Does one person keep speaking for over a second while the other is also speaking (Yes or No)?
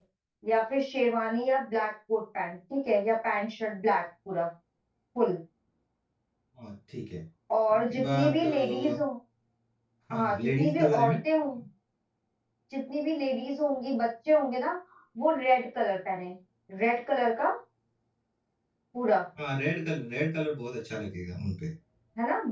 Yes